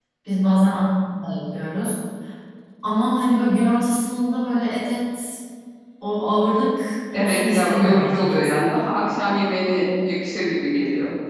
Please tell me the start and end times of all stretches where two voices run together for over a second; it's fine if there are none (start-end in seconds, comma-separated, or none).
7.1-8.6